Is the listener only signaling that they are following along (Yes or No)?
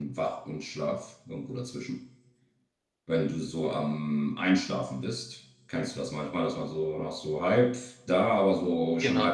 Yes